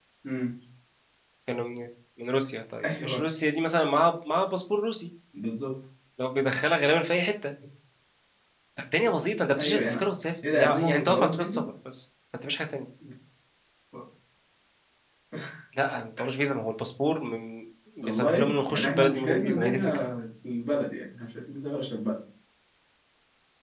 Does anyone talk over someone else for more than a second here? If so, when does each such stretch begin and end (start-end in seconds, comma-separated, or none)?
10.4-11.6, 18.0-20.0